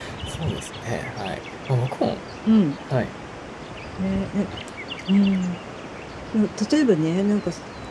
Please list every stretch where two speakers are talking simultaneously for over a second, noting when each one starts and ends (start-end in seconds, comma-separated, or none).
none